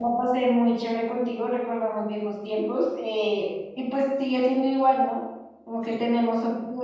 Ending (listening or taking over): listening